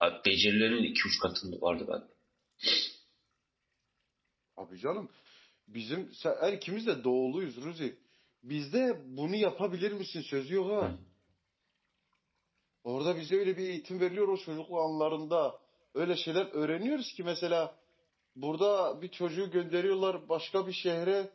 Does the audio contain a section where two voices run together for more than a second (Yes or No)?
No